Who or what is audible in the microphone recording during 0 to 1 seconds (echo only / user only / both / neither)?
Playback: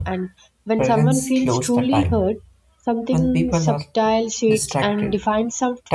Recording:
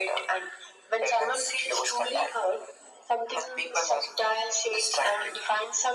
echo only